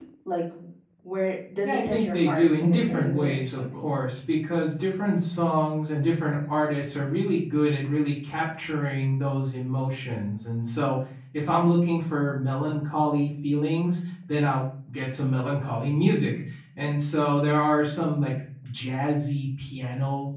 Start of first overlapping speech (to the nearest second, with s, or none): 2 s